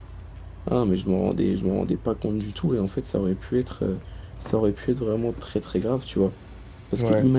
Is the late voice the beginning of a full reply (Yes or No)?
No